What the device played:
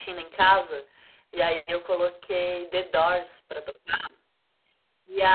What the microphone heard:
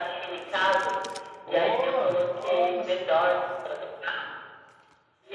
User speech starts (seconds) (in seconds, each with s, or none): 1.4 s